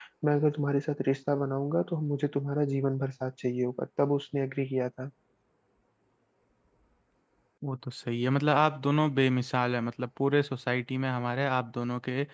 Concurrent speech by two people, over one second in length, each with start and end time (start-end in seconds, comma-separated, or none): none